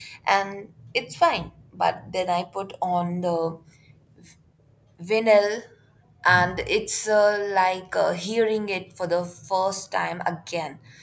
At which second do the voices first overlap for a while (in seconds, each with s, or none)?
none